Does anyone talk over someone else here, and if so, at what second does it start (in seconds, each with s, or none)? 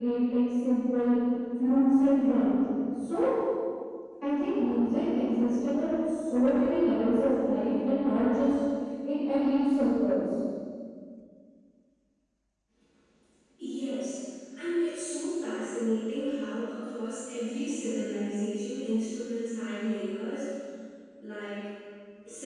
none